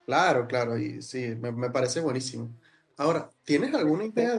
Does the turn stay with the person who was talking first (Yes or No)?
Yes